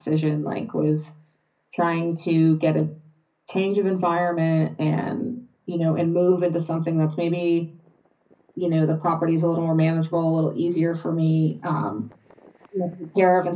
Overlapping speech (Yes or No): No